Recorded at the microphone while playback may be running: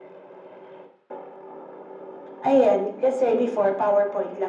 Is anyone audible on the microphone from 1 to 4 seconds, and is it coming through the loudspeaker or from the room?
echo only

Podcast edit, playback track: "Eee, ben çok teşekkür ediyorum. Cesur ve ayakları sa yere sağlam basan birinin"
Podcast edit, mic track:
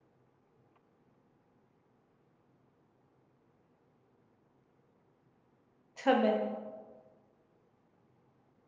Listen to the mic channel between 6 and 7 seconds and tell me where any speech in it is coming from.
user only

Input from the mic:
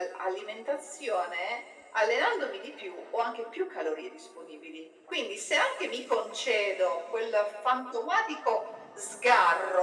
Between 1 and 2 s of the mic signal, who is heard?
echo only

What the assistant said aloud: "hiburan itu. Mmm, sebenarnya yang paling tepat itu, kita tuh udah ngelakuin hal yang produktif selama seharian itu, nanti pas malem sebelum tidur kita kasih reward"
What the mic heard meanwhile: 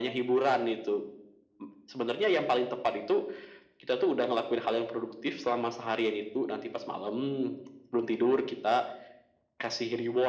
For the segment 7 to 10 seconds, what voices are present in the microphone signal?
echo only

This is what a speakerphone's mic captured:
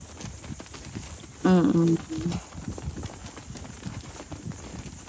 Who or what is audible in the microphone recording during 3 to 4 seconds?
neither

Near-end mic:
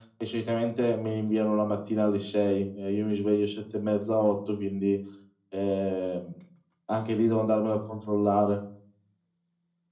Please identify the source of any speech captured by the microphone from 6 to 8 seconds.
echo only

